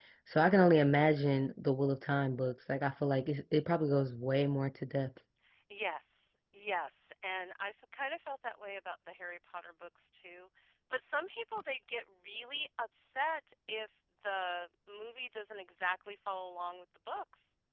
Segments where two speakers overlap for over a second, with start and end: none

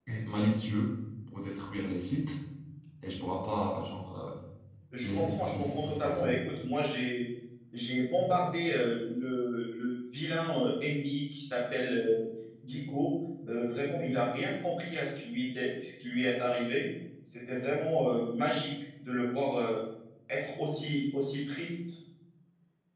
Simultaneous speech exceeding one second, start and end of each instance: 5.0-6.3

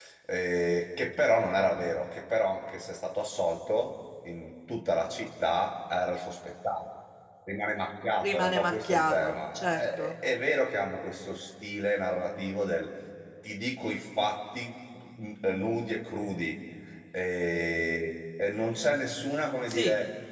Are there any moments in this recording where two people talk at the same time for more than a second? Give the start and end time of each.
8.2-10.1

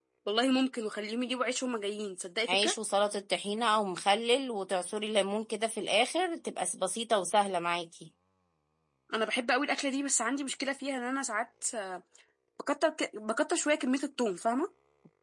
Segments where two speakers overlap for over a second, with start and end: none

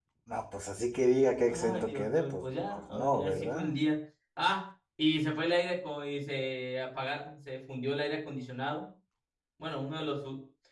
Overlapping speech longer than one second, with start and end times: 1.5-3.8

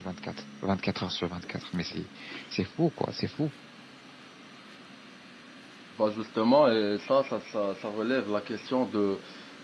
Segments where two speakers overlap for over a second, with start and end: none

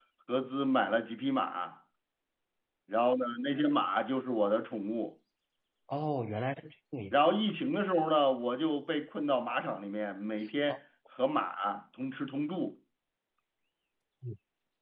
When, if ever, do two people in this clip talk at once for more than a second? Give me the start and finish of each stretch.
none

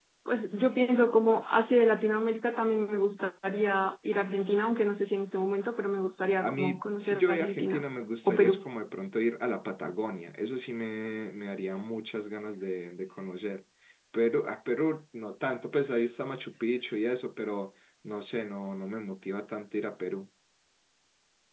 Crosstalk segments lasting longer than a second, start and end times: 6.4-7.8

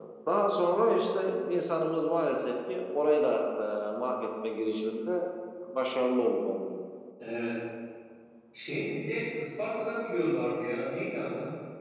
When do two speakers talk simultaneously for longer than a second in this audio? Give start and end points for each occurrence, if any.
none

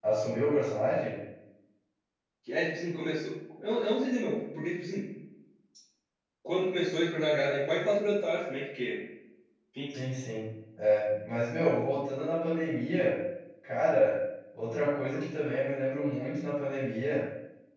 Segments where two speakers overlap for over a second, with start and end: none

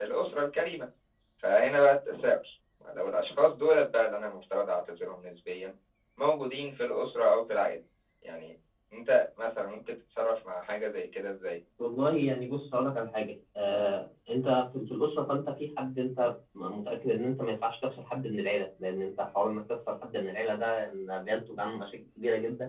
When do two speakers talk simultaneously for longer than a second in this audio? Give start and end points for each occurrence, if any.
none

